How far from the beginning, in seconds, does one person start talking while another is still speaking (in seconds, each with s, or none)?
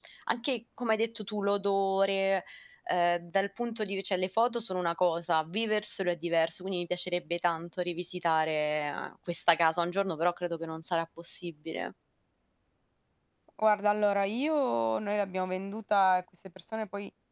none